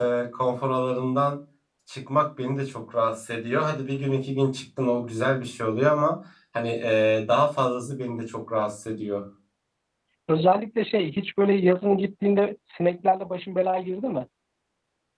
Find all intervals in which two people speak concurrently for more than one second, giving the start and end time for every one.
none

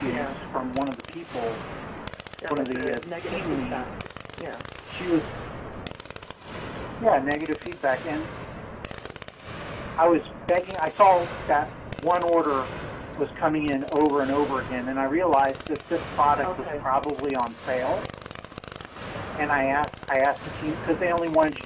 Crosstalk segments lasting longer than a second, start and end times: 2.5-3.9

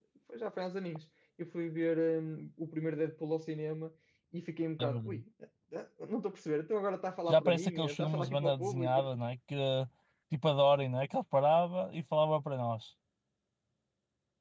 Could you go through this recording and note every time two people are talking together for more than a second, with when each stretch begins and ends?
7.3-9.0

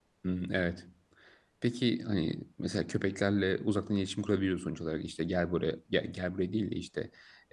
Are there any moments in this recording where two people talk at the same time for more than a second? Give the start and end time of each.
none

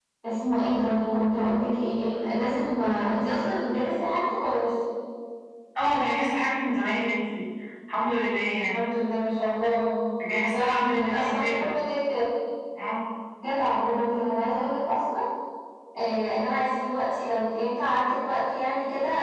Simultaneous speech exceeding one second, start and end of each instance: 10.4-11.7

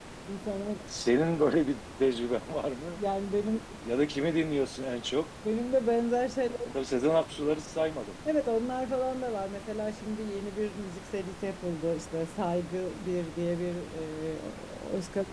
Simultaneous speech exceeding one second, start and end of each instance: none

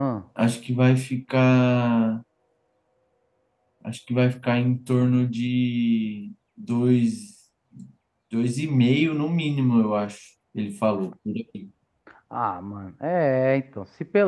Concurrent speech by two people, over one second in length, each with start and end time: none

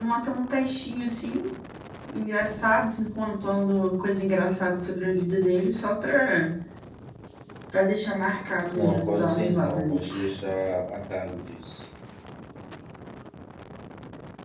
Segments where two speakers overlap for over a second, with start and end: 8.7-10.1

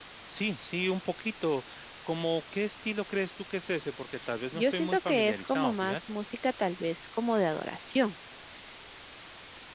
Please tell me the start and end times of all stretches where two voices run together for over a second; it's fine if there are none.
4.6-6.0

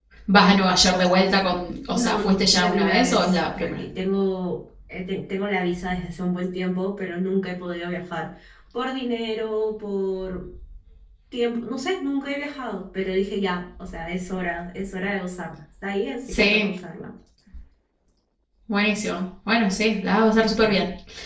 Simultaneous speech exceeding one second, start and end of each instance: 1.9-3.8

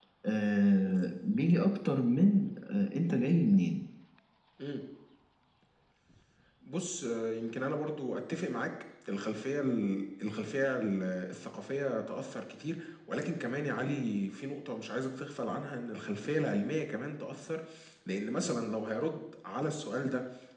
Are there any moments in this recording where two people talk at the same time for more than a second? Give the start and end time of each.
none

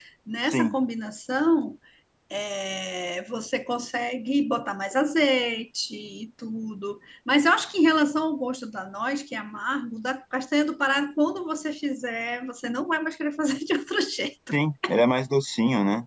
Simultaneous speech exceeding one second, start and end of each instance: none

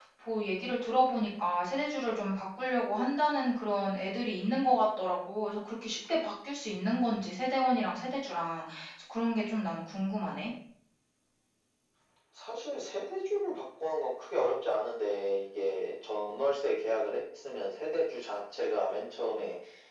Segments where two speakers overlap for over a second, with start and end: none

